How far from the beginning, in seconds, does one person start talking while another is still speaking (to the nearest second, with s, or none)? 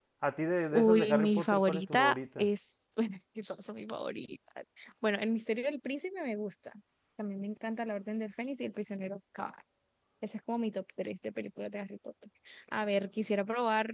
1 s